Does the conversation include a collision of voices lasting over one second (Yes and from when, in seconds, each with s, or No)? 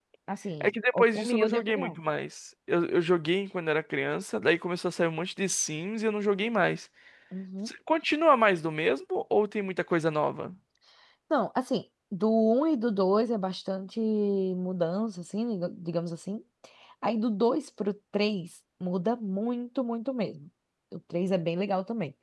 Yes, from 0.6 s